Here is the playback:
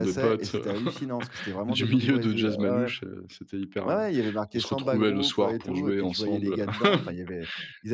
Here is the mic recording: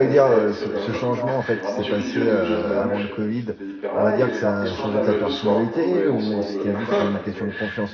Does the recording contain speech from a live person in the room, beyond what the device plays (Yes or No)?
Yes